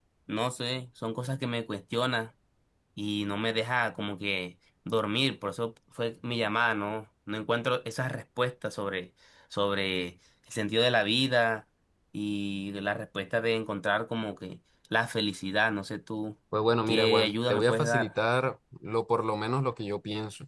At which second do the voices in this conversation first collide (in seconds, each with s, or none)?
16.9 s